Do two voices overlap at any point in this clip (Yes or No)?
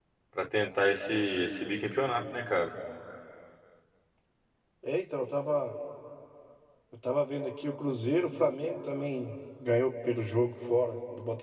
No